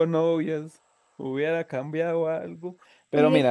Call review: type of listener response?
listening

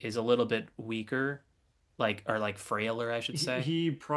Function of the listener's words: taking over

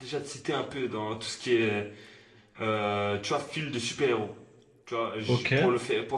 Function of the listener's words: listening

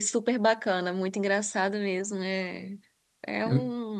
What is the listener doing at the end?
listening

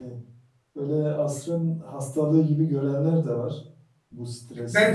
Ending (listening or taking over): taking over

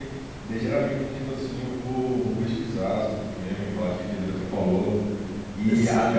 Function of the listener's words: listening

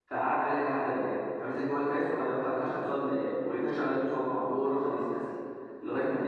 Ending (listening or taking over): listening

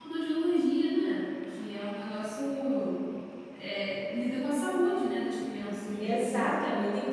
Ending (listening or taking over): taking over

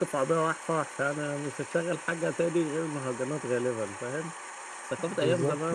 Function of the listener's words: listening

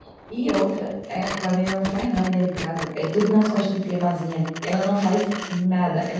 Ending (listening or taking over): listening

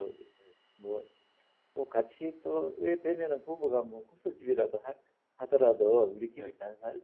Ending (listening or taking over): listening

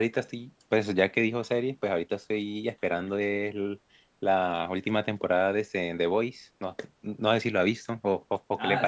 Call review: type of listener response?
taking over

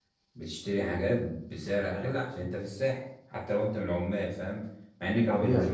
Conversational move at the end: listening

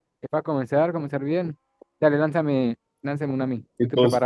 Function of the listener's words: taking over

